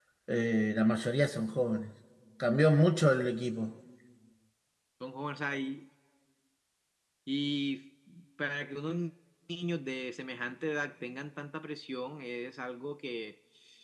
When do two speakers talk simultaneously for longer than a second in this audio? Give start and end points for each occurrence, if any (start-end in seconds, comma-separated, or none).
none